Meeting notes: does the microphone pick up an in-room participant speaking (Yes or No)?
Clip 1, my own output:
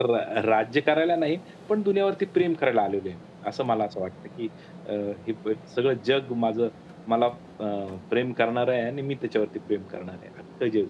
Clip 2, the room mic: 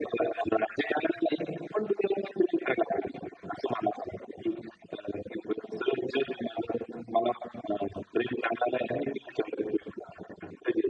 No